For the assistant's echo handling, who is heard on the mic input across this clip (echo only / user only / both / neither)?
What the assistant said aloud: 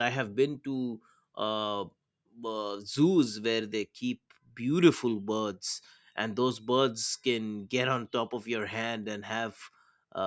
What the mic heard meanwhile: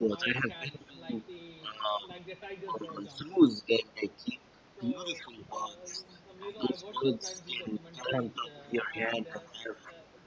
both